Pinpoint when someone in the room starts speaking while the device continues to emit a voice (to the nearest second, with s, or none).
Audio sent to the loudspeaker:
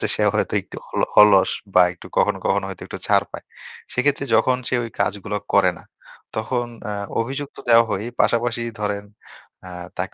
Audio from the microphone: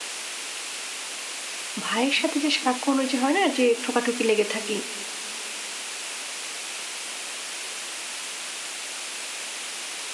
2 s